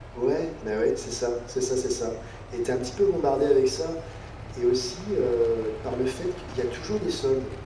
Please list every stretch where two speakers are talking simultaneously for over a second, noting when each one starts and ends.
none

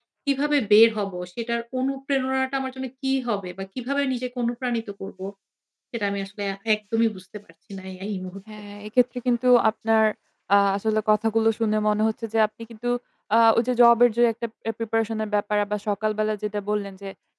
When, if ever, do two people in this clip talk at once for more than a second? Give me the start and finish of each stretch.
none

